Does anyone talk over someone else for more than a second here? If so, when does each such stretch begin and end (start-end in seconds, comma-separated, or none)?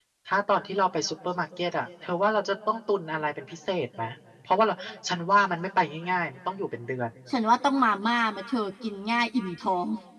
none